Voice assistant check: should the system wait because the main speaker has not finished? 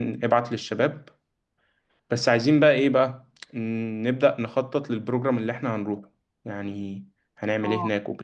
No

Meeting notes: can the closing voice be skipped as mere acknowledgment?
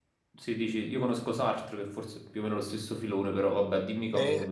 No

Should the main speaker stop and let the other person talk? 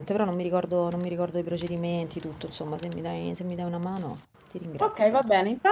Yes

